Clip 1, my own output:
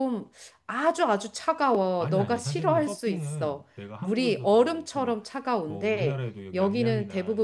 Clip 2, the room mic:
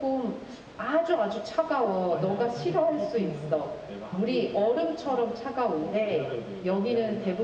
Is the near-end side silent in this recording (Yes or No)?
Yes